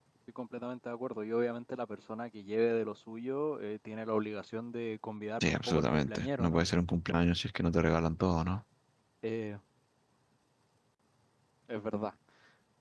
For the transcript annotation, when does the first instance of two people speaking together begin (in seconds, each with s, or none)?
5.4 s